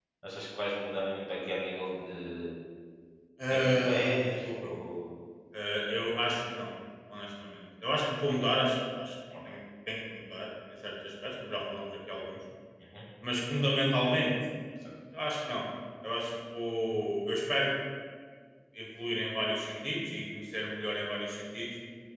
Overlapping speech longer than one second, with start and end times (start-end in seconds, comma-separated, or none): 3.5-4.8